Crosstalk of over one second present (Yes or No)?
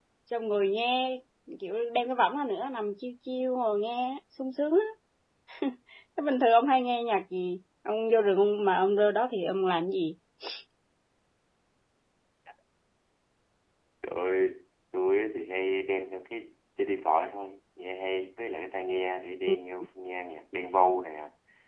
No